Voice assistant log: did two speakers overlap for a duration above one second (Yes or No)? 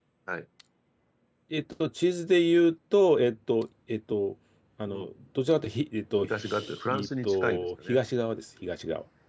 Yes